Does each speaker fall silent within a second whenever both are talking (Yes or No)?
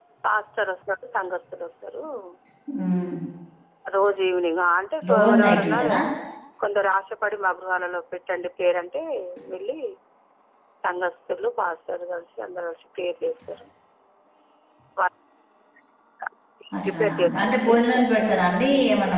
No